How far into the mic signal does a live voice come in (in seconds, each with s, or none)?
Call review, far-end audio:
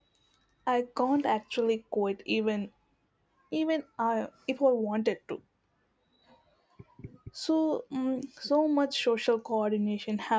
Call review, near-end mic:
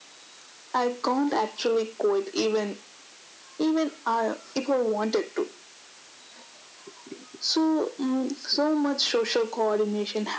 none